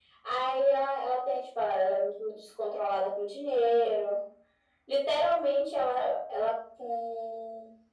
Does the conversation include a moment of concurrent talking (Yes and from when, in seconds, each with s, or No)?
No